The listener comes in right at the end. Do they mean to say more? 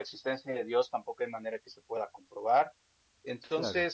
No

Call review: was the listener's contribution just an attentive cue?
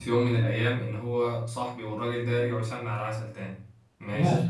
Yes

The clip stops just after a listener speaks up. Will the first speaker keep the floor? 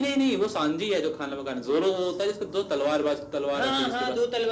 No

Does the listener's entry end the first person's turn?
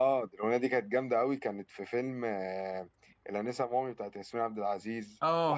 Yes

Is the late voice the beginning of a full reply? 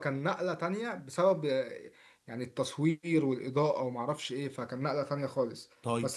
No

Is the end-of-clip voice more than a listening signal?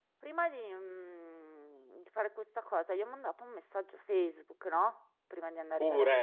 No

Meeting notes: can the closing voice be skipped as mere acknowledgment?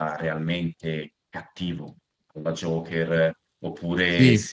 Yes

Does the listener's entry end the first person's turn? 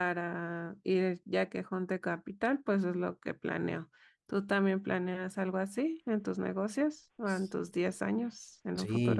Yes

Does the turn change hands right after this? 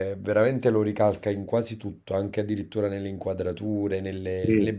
No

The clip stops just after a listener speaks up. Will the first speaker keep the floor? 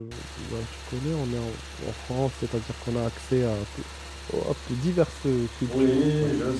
No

